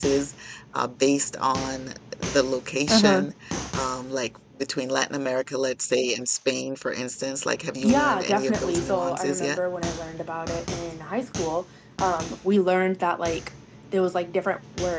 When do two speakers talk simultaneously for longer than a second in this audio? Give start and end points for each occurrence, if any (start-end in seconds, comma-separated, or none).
7.8-9.6